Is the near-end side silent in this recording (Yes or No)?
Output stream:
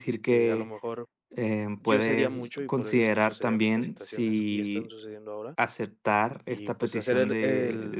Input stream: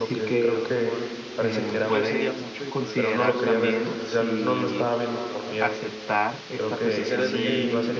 No